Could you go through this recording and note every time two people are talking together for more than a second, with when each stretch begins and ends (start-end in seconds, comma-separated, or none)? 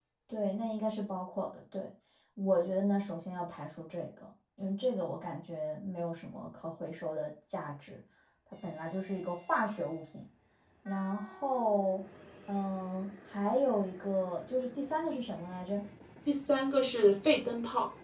none